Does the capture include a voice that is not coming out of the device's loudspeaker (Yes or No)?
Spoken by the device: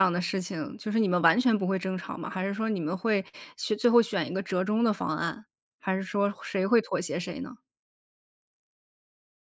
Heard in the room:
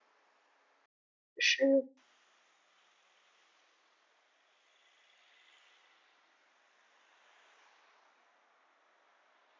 Yes